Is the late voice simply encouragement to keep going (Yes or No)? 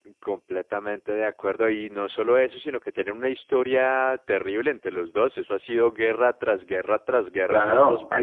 No